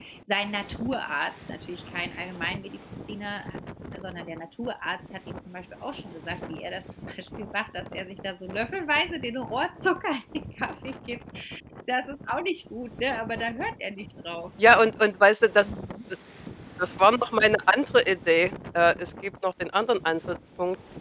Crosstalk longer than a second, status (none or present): none